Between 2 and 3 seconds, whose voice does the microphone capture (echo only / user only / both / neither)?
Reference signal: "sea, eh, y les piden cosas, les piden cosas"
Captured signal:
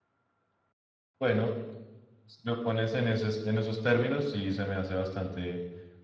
user only